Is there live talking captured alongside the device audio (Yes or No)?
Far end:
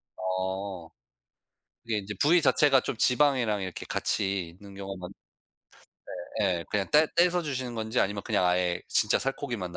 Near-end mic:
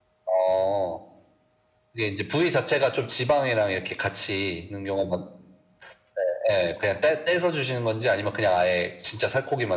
No